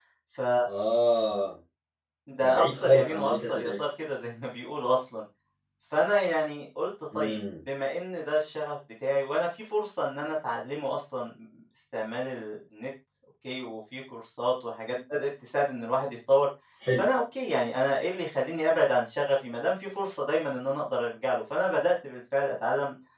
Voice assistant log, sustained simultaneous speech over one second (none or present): present